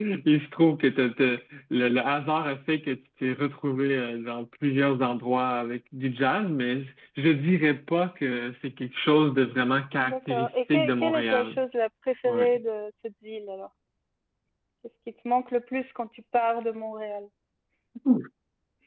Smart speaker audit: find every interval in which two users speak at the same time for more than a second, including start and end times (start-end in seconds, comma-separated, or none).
10.0-11.6